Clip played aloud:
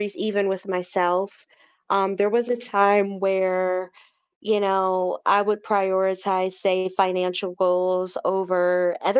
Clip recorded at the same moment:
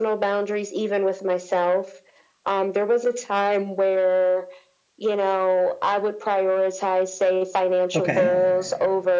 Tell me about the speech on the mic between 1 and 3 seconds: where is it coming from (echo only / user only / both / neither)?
echo only